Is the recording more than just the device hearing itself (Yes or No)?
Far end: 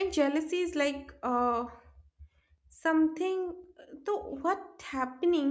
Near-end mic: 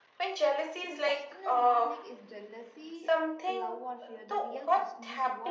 Yes